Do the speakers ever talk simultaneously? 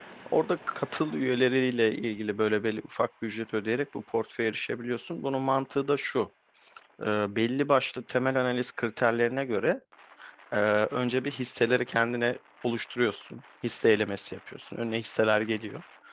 No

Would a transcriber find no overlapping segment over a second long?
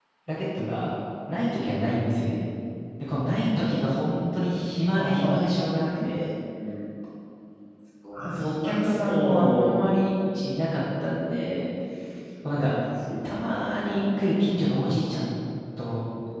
No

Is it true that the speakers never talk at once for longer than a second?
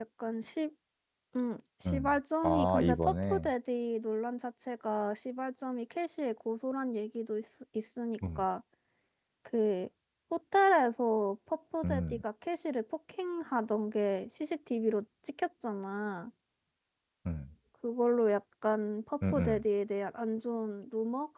No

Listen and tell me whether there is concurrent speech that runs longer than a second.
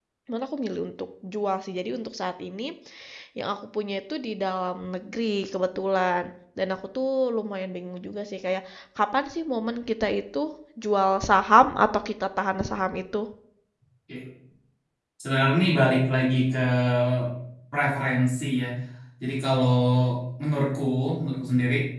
No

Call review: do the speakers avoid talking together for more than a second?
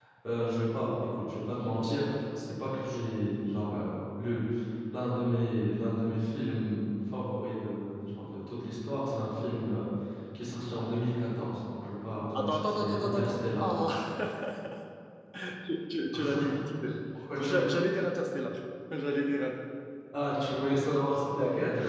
No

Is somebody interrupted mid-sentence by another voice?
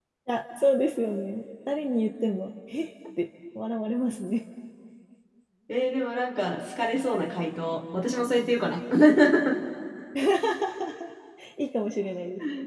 No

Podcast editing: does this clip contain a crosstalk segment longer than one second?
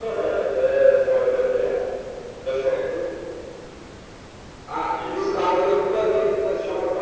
No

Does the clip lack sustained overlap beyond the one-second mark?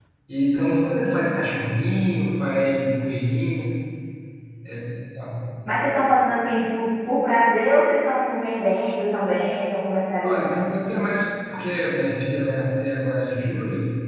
Yes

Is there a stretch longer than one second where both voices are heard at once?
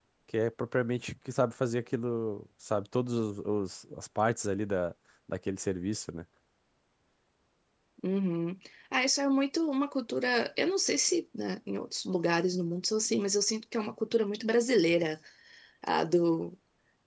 No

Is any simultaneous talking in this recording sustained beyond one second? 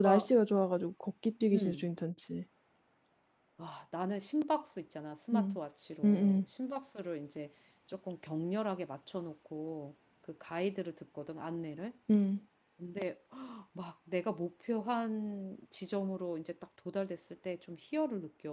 No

